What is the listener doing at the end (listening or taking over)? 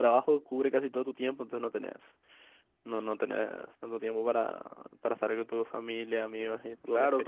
taking over